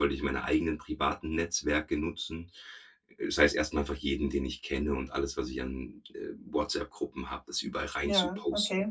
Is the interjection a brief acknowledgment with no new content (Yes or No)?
Yes